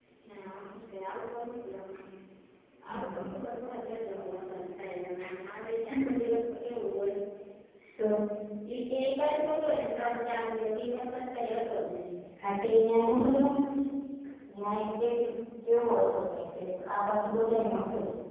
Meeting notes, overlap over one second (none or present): none